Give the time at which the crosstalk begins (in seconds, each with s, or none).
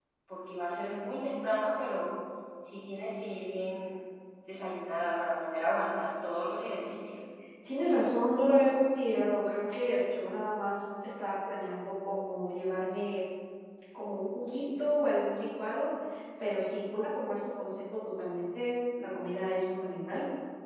none